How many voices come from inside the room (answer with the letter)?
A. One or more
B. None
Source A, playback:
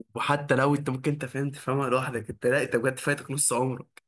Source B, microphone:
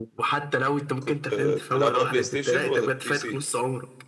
A